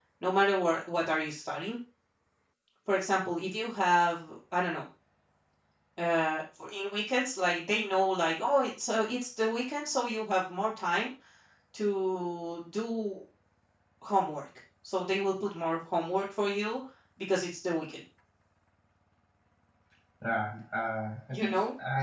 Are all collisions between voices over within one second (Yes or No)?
Yes